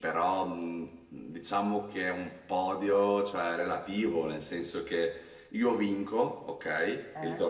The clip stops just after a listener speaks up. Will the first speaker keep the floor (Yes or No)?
Yes